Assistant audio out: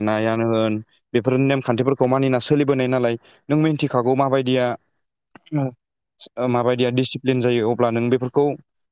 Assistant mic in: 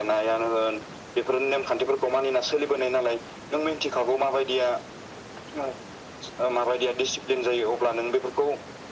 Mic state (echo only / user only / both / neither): echo only